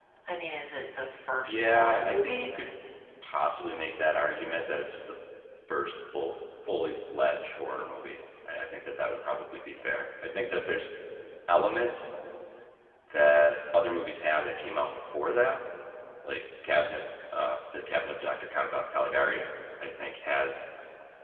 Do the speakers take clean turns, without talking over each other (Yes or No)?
No